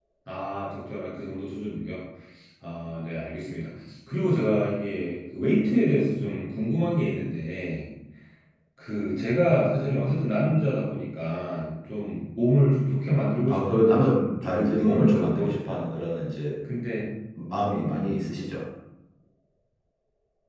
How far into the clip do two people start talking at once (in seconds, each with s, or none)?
13.5 s